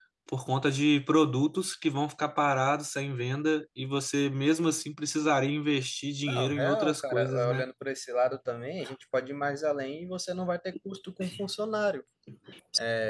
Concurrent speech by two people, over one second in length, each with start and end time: 6.3-7.6

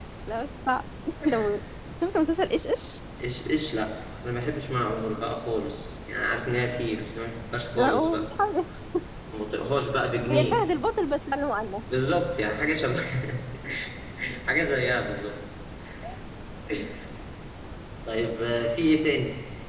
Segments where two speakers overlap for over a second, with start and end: none

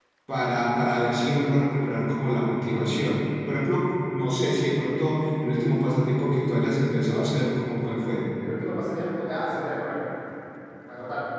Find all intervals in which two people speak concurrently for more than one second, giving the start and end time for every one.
none

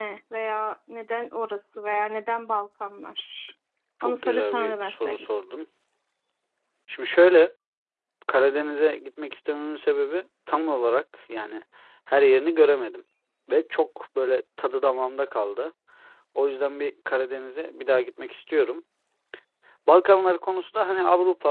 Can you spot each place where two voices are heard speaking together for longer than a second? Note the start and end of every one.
4.0-5.2

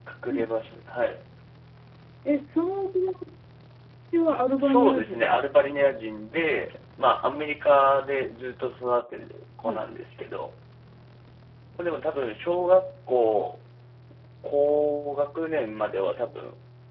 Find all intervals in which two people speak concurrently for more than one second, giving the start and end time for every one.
4.6-5.8

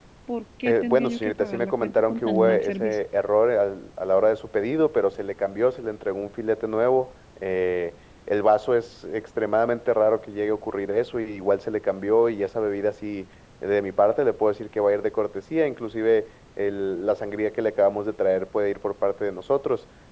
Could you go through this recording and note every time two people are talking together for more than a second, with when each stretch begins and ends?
0.7-3.0

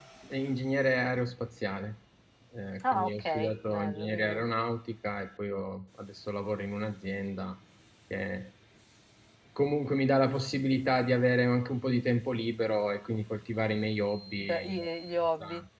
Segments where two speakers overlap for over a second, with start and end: 2.9-4.4

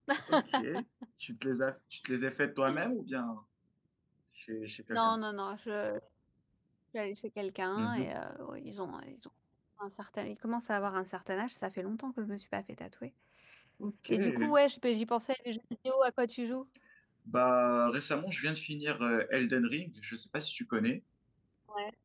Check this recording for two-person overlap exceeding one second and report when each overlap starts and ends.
none

